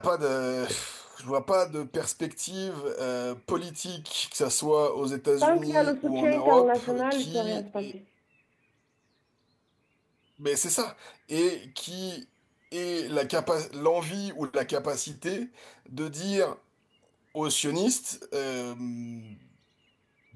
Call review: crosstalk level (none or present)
present